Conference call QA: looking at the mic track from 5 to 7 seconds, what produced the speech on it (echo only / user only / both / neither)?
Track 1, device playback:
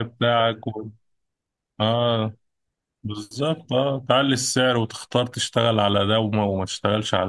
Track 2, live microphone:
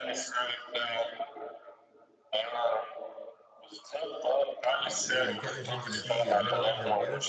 both